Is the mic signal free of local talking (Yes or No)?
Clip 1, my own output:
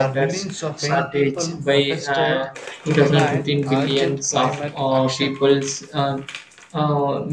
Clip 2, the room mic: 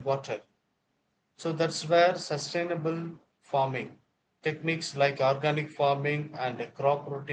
No